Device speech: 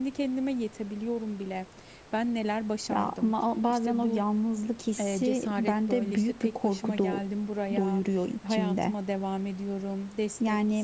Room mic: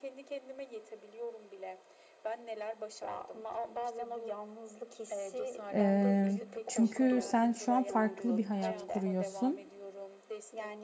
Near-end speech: present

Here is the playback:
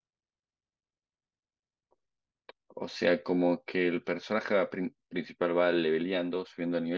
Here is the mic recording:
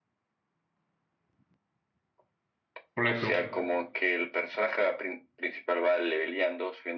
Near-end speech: present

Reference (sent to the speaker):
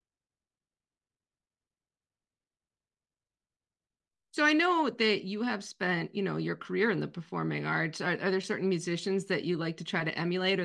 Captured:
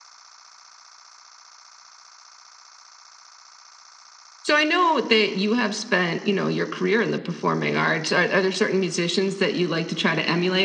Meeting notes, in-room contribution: none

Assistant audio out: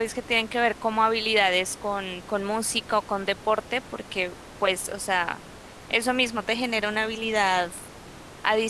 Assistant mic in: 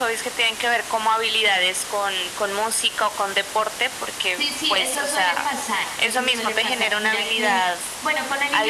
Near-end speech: present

